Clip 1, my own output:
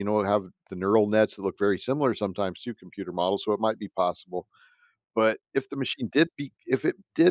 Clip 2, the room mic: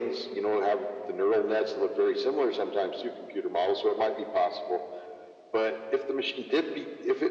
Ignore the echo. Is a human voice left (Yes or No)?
No